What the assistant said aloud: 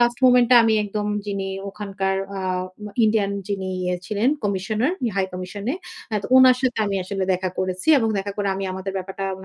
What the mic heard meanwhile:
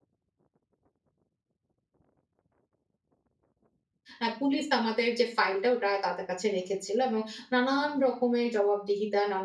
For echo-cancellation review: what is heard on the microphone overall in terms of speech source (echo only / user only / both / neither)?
user only